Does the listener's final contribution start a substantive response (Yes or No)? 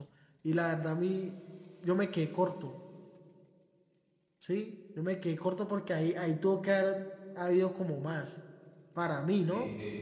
Yes